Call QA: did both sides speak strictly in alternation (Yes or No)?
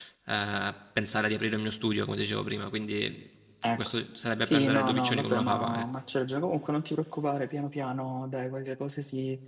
No